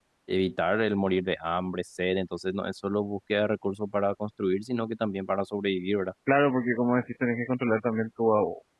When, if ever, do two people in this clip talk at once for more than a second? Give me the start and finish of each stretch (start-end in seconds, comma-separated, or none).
none